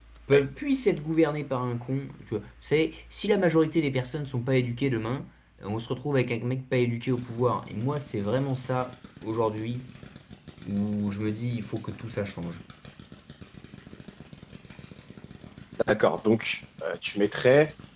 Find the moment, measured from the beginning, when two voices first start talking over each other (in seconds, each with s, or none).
none